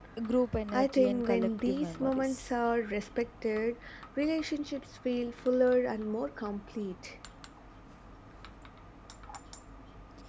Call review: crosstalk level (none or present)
present